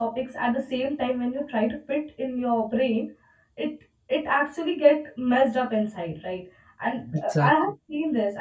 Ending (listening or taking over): listening